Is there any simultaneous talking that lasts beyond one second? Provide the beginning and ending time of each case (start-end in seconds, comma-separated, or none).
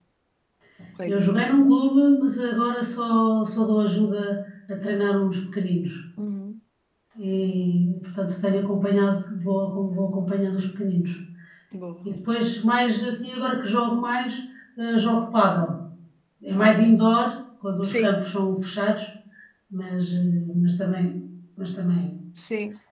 none